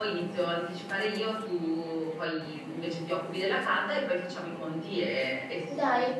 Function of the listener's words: taking over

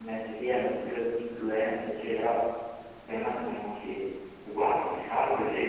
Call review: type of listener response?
listening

